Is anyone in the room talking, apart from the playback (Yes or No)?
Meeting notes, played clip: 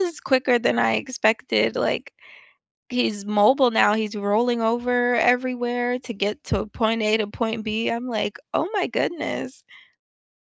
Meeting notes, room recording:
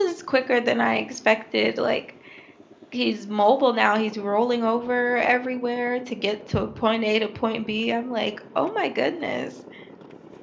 No